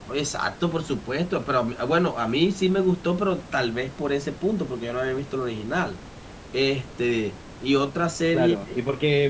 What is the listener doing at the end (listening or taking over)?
taking over